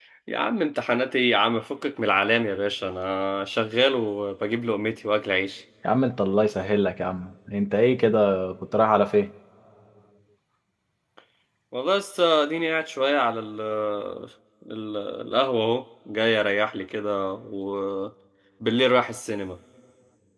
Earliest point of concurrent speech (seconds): none

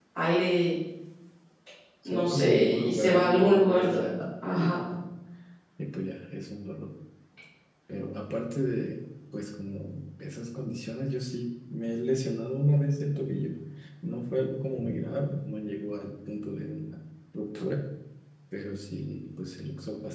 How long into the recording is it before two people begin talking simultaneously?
2.0 s

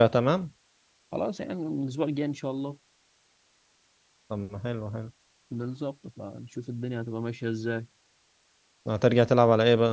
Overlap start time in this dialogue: none

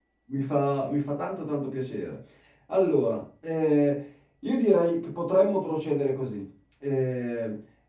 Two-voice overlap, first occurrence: none

